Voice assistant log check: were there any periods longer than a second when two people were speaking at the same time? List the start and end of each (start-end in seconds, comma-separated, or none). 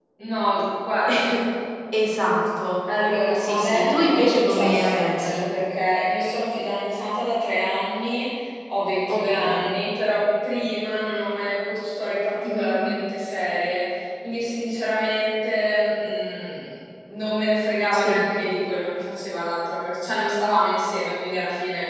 3.3-5.4